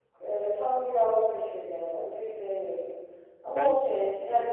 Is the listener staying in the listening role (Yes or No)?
Yes